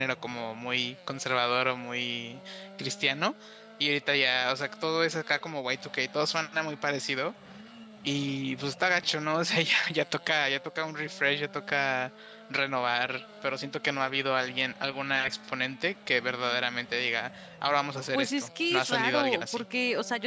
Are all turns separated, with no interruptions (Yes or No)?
No